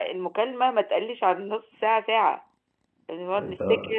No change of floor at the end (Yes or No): Yes